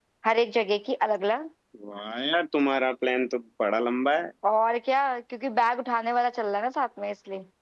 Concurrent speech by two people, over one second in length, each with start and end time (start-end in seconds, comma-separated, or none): none